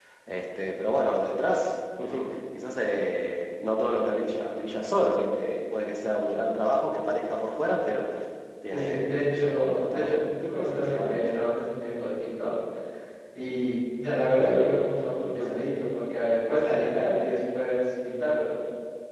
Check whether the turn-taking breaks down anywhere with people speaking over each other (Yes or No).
Yes